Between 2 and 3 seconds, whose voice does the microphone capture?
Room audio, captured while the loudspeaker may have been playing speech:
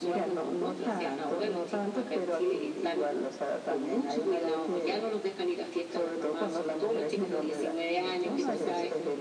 echo only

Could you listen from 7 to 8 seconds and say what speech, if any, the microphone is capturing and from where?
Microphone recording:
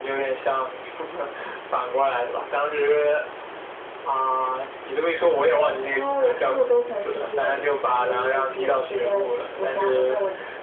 echo only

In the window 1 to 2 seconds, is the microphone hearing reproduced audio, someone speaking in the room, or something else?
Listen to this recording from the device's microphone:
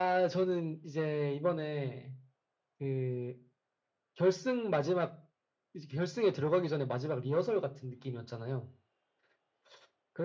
echo only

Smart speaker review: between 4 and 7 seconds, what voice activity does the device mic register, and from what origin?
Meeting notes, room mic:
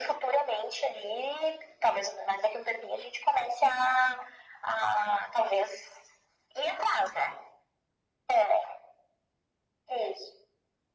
echo only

